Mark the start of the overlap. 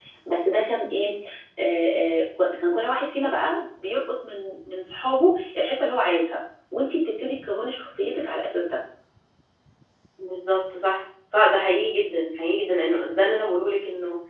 none

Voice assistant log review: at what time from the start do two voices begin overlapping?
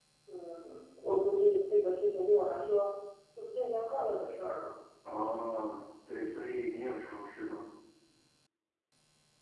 none

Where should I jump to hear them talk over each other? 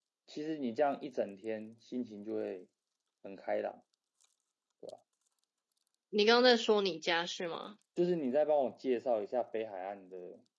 none

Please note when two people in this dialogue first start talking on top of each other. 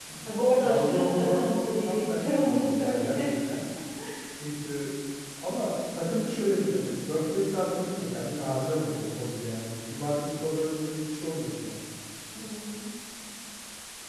1 s

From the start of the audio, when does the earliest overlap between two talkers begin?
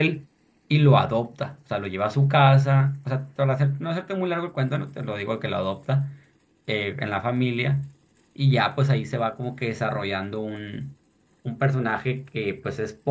none

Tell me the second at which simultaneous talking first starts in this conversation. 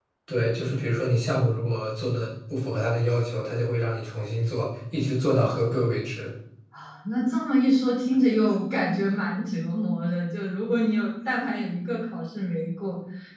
none

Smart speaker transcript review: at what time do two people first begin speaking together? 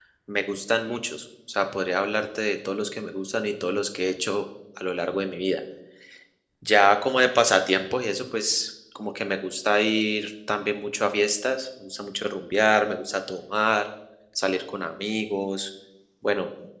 none

